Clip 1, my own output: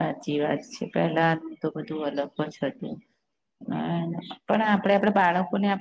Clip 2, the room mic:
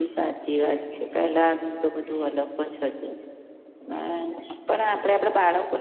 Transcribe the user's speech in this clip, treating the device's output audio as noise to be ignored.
none

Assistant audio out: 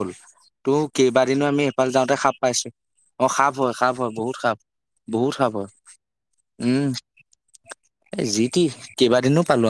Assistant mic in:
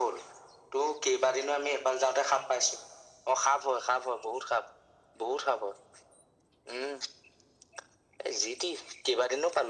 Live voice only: none

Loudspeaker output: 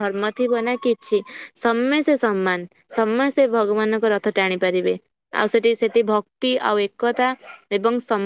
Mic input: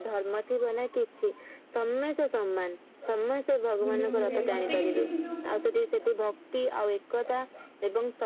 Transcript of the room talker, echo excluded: ବୁଲିବାକୁ ଯାଏ ମତେ କିନ୍ତୁ ସେ ଯୋଉ

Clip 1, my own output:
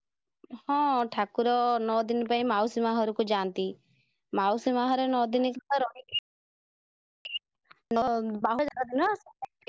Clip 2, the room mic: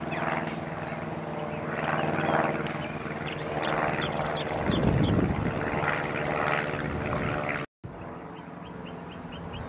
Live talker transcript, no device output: none

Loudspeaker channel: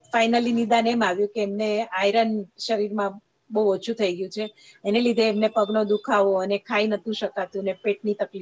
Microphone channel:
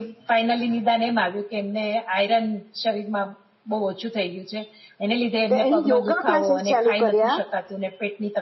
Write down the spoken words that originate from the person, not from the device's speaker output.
તો એને યોગા ક્લાસીસ ચાલુ કર્યા.

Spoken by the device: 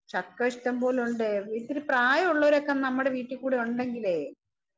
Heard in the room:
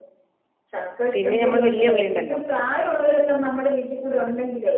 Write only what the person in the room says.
പിന്നെ ഞമ്മള് വല്യ ഉള്ളിണ്ടല്ലോ

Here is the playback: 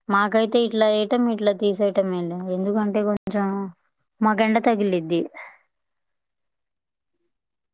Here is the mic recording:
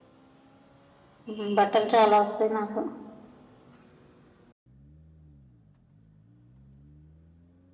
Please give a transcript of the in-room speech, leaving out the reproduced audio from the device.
ఉమ్ బట్టలు చాలా వస్తాయి నాకు.

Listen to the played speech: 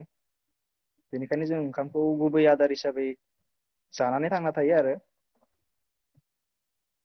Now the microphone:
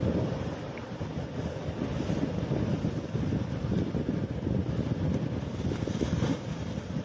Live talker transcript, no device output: none

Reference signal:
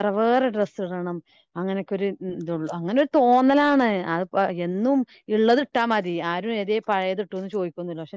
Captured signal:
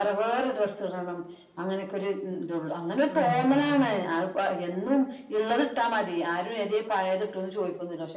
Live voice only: ആഹ് മതി

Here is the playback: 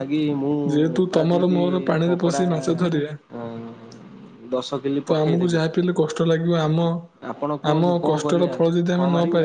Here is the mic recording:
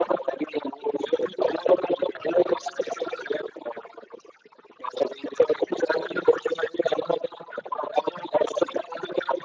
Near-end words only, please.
none

